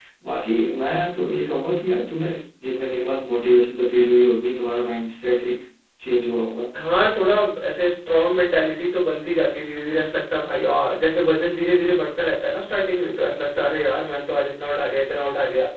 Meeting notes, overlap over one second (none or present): none